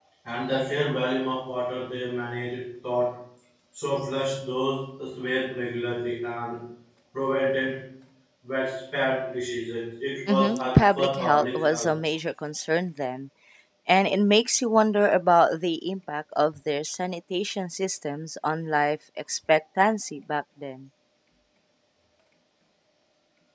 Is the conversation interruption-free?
No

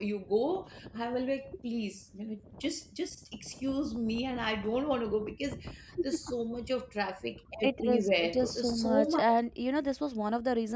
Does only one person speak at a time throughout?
No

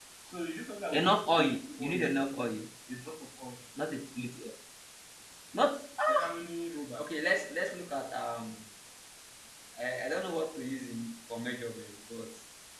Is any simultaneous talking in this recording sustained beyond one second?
Yes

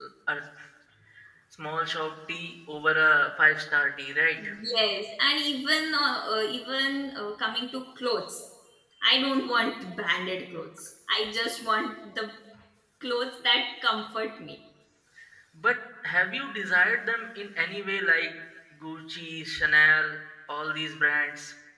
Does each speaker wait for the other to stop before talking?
Yes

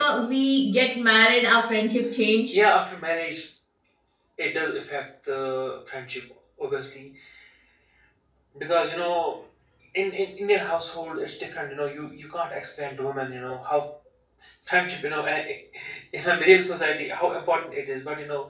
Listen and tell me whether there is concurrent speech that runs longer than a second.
No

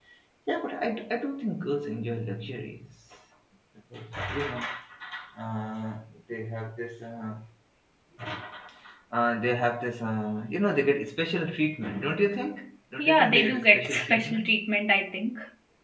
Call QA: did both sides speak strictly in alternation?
No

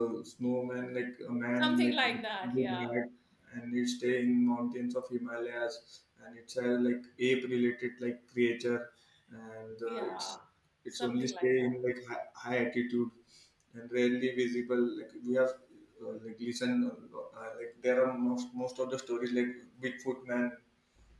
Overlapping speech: Yes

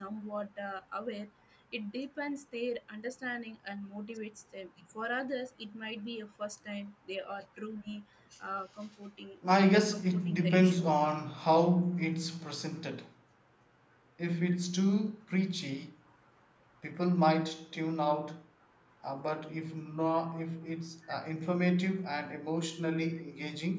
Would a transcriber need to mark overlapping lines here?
Yes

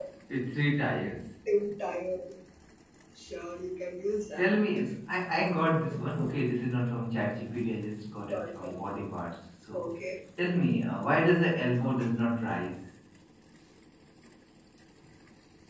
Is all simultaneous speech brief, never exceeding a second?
Yes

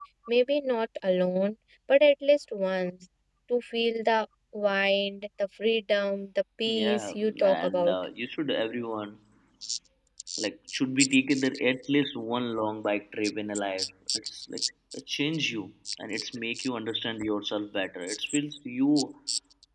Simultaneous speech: Yes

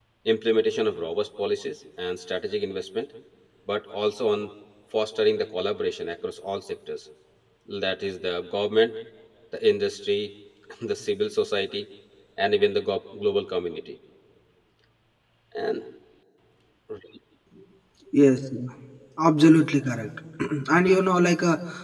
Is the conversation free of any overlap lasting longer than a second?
Yes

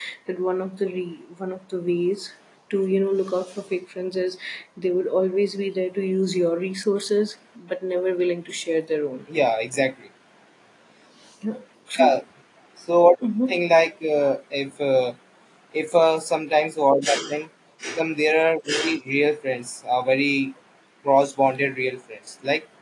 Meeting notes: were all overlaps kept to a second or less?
Yes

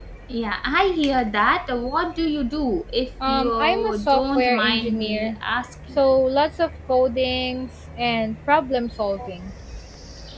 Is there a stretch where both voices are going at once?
Yes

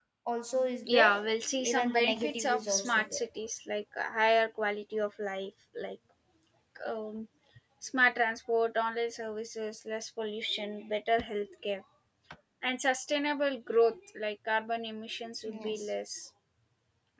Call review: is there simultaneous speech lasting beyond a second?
Yes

